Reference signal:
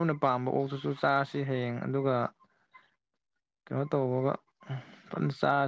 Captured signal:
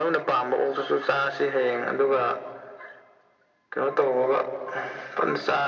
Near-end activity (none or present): none